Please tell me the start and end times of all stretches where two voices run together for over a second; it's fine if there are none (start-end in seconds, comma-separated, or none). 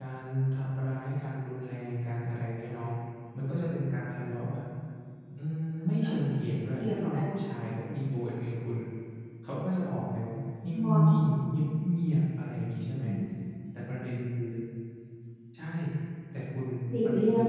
none